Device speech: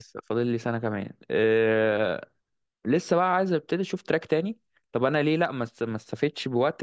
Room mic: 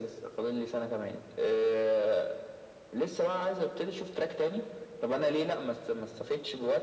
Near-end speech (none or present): none